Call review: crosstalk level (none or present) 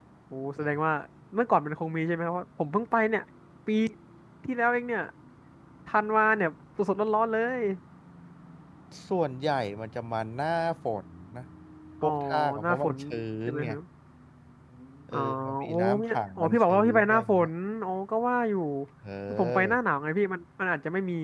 present